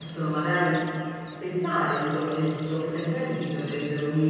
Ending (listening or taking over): listening